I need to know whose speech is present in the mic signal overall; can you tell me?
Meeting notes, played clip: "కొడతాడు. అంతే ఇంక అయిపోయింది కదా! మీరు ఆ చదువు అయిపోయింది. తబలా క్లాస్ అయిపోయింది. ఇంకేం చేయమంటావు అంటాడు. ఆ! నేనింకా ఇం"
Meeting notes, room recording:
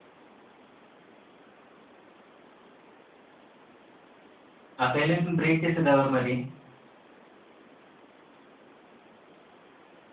user only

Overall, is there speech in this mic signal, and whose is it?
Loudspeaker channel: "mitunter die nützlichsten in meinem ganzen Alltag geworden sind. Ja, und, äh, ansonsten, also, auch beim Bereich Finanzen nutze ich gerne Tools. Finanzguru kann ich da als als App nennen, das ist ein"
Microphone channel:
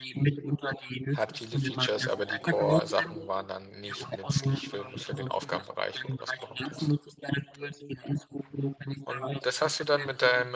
both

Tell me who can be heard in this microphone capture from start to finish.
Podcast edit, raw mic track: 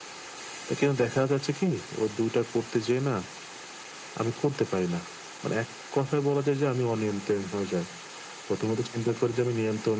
echo only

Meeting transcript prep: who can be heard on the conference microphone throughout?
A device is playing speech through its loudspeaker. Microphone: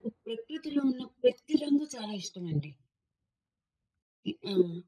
echo only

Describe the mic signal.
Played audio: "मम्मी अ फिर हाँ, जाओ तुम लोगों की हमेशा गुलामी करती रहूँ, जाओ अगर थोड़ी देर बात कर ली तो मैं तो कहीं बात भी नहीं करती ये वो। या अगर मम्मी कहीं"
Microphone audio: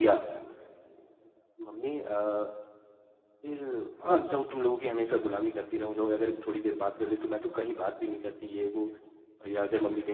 echo only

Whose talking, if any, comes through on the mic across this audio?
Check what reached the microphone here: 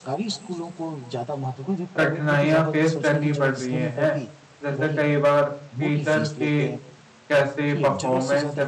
both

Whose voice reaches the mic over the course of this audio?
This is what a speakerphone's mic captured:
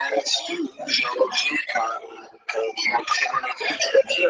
echo only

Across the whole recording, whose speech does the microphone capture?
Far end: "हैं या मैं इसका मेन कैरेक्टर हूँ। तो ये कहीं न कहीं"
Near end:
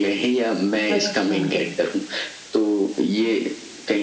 both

